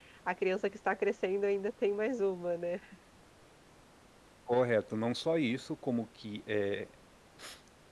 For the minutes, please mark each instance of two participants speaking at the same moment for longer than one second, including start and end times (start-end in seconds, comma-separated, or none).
none